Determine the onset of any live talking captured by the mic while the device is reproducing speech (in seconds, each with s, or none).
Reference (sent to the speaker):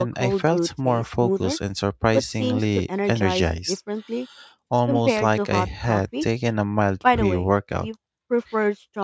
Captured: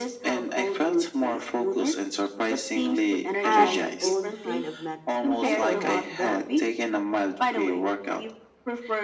3.4 s